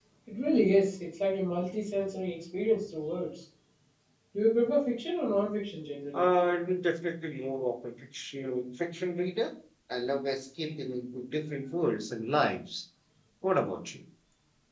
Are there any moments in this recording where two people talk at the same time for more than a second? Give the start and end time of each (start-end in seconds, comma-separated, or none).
none